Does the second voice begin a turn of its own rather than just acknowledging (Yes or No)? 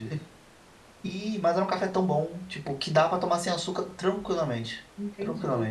Yes